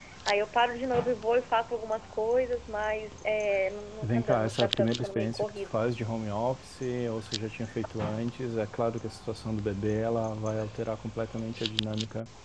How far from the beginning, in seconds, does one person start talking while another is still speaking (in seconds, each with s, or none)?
4.0 s